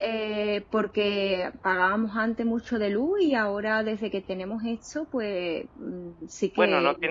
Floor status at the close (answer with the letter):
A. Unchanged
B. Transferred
B